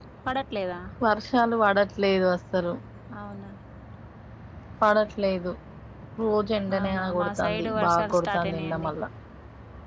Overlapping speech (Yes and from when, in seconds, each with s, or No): Yes, from 6.8 s